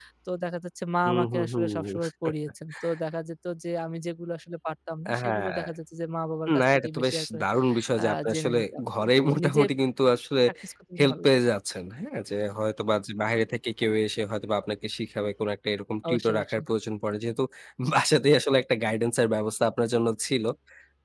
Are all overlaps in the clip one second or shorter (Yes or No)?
No